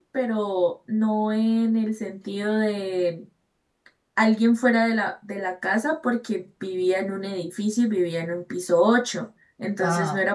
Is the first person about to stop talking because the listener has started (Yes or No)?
No